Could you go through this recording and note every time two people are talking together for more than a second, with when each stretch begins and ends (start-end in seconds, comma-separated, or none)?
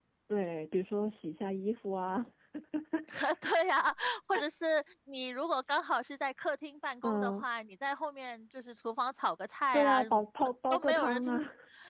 9.7-11.4